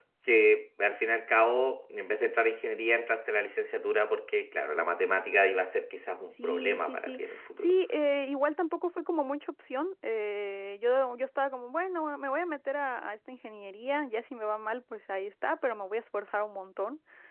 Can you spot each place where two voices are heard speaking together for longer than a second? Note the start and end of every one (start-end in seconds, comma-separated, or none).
6.3-7.7